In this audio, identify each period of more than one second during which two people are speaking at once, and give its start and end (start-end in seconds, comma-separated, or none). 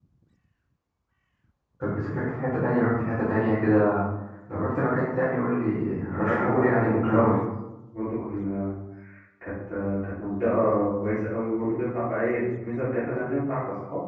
6.1-7.4